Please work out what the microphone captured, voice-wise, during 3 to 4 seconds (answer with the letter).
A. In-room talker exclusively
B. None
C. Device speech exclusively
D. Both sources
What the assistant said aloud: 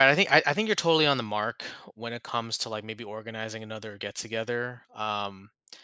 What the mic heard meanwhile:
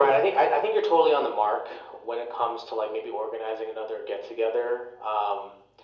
C